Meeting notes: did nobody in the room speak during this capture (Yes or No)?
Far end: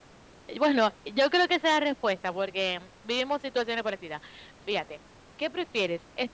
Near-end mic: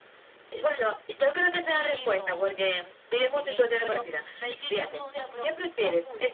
No